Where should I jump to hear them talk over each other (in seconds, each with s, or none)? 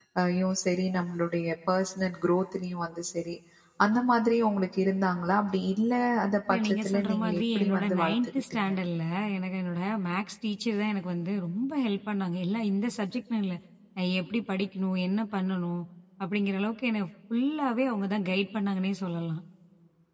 6.5 s